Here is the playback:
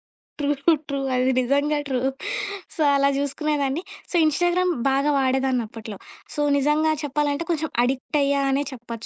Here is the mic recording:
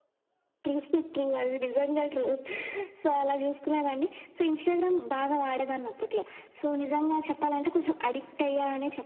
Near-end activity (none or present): none